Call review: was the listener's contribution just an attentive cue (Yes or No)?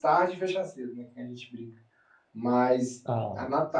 Yes